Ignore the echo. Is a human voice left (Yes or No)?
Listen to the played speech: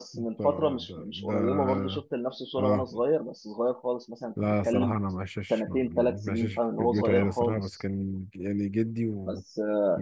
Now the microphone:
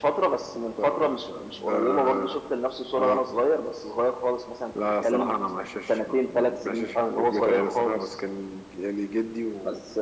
No